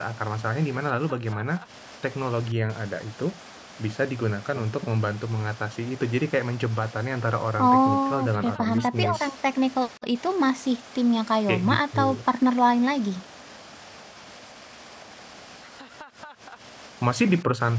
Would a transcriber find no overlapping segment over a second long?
No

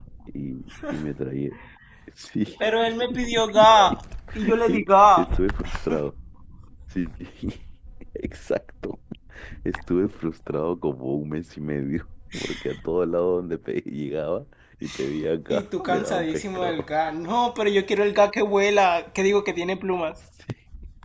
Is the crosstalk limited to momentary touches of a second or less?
No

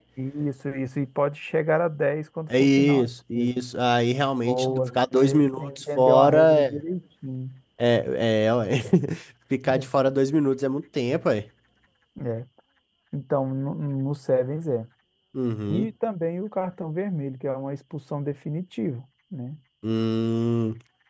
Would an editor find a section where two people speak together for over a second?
Yes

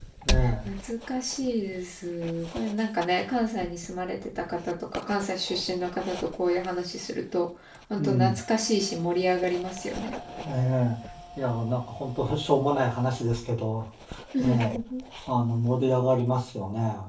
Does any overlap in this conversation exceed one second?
No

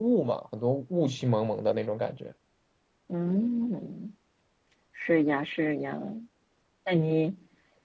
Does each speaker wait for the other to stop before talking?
Yes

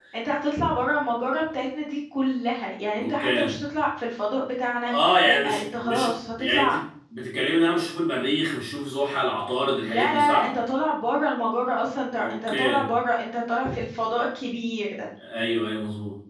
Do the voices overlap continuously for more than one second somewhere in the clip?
Yes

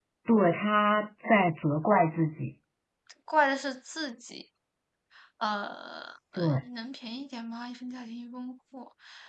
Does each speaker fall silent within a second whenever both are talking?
Yes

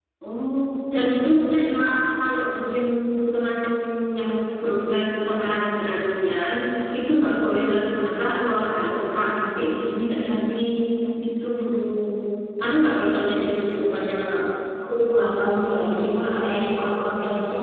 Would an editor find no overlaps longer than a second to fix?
Yes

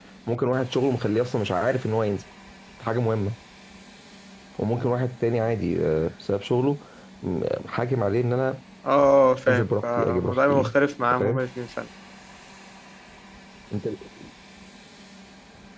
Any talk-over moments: Yes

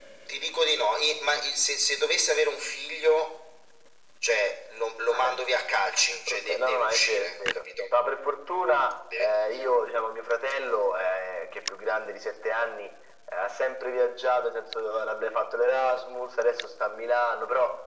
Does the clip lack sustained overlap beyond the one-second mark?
No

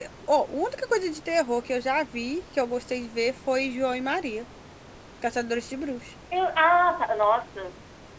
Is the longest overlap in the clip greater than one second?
No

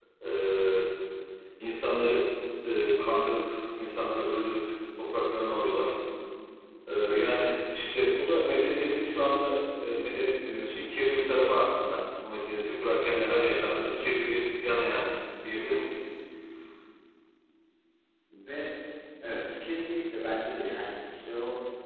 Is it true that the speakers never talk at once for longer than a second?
Yes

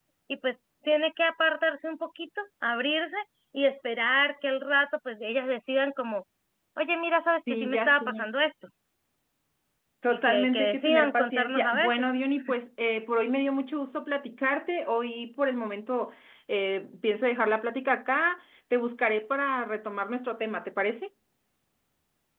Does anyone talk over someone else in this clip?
Yes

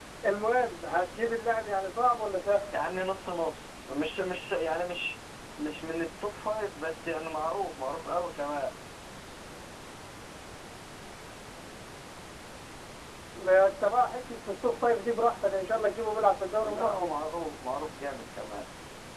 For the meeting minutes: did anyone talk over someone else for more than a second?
No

